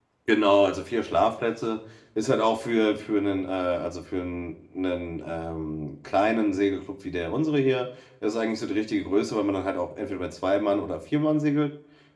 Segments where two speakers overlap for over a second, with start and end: none

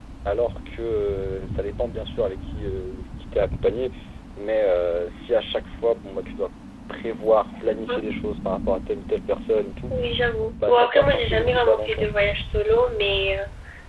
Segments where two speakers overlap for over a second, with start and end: 10.6-12.0

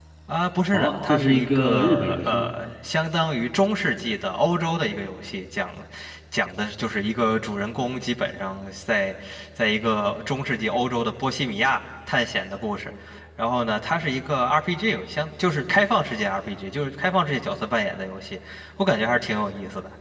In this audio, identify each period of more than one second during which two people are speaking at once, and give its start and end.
0.7-2.5

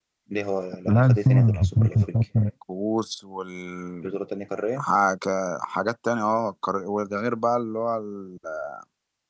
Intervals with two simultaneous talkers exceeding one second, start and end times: 0.8-2.2

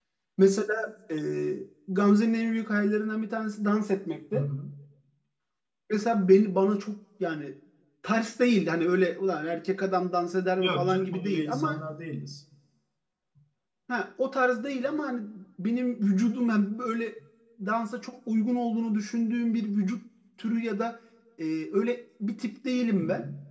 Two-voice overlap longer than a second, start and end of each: 10.6-11.8

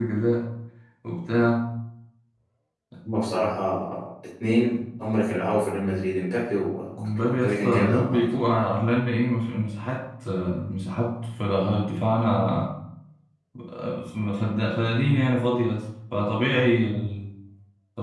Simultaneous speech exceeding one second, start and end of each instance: 7.0-8.2

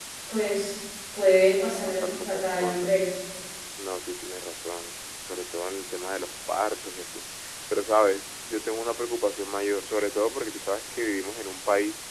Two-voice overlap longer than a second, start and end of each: 1.7-2.9

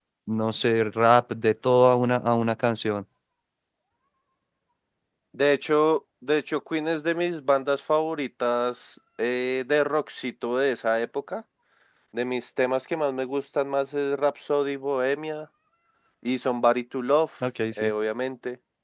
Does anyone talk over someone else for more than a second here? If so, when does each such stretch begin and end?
none

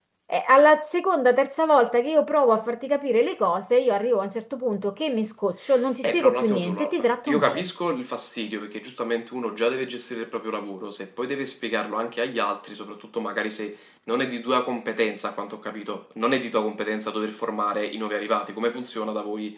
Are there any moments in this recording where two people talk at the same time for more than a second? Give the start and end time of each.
6.0-7.7

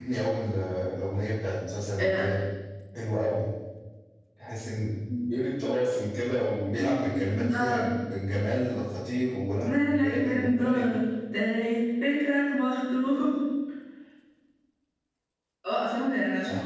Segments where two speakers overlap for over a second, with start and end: 9.7-10.9

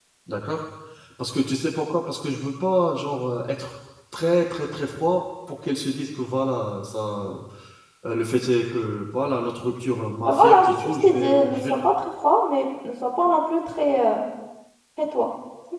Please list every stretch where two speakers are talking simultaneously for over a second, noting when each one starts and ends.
10.3-11.7

